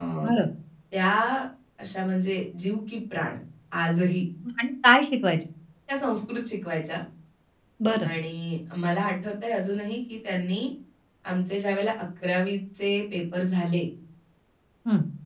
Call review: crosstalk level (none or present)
none